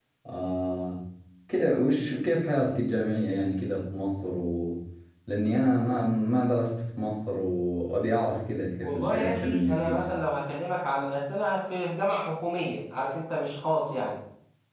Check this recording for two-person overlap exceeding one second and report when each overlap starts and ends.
8.8-10.1

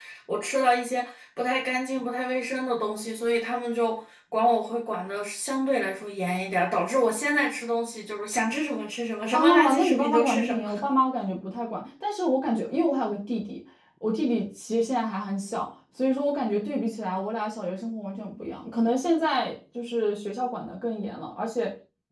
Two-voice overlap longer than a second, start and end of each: 9.3-10.6

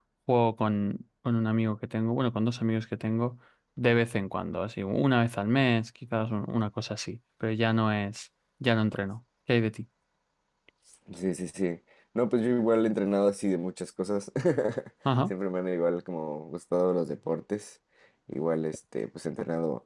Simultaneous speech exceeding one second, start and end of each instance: none

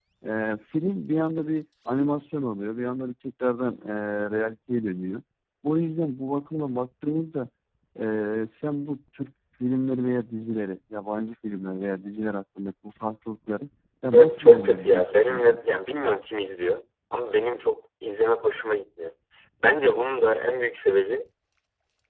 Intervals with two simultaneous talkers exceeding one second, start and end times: 14.1-15.6

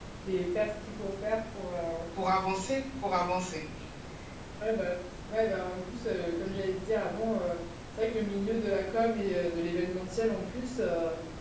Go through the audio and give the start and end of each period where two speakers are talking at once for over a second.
none

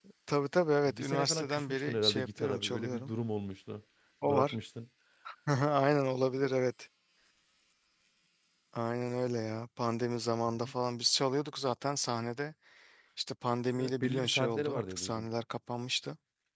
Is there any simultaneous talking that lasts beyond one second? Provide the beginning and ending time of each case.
0.8-3.1, 13.8-15.3

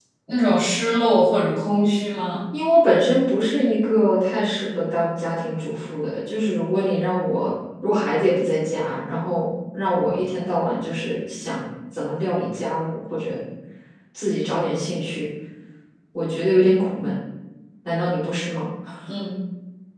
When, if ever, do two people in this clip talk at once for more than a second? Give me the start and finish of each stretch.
none

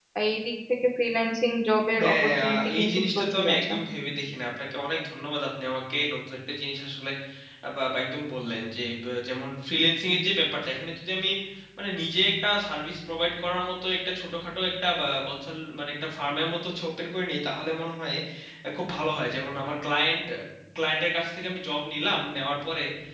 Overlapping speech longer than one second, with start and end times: 2.0-3.7

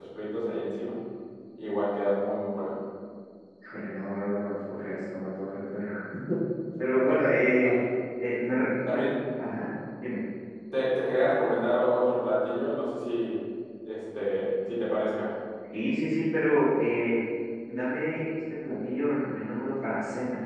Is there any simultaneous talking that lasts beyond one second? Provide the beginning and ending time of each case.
none

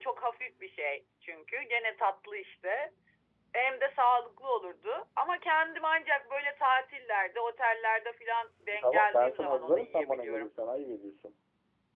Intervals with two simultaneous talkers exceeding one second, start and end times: 8.8-10.5

